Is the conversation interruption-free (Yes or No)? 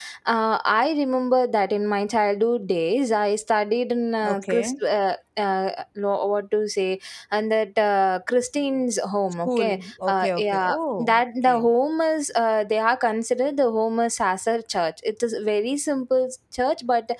No